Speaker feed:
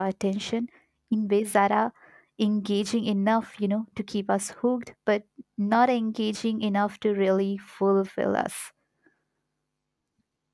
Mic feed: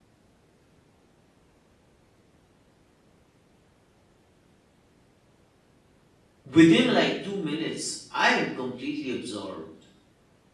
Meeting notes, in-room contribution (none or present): present